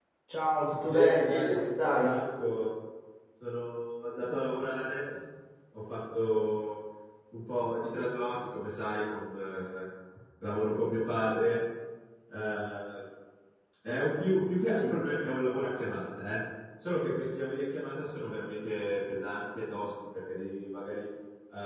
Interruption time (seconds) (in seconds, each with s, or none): 0.8 s